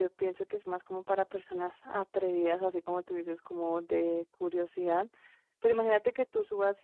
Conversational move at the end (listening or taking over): listening